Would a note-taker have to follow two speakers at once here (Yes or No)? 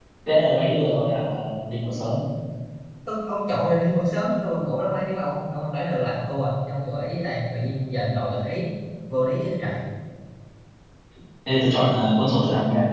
No